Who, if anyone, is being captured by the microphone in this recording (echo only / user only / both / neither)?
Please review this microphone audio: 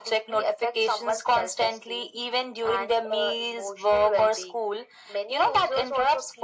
echo only